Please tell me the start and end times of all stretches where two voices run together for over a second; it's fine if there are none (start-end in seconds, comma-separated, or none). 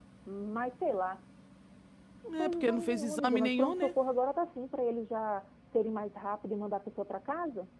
2.4-3.9